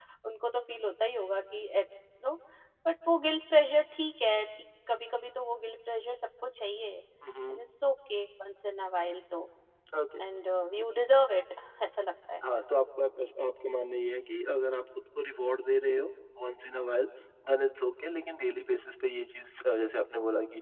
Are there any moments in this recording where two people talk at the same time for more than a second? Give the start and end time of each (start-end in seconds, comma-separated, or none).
none